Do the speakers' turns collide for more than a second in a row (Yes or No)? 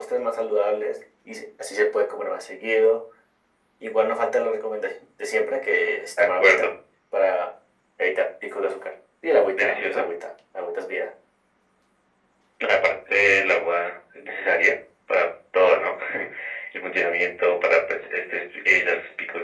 No